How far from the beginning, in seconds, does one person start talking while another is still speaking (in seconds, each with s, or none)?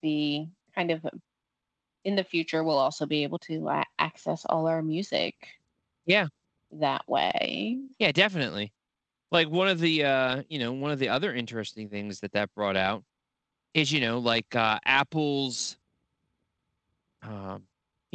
none